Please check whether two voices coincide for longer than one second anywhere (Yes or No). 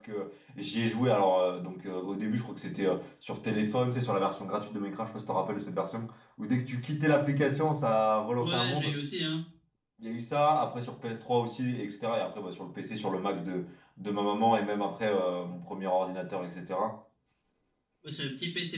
No